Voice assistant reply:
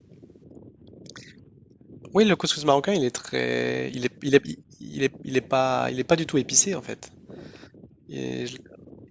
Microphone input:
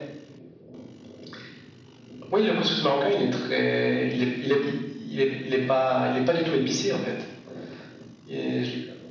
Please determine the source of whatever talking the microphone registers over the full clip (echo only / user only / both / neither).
echo only